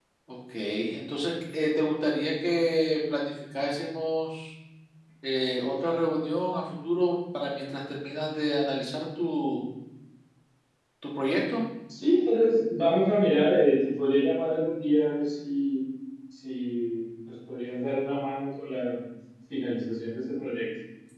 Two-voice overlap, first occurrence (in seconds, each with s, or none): none